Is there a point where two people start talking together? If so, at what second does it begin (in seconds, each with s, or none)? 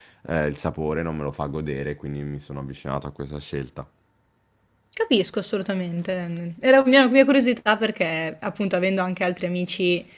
none